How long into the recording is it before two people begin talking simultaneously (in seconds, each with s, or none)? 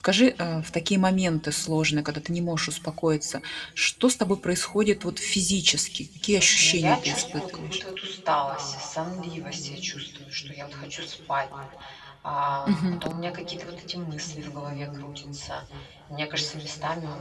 6.2 s